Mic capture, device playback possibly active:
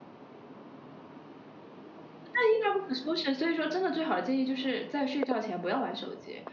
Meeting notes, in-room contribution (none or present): present